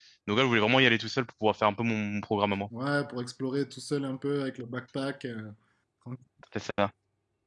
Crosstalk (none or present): none